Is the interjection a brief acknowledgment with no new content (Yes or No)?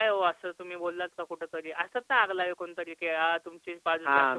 No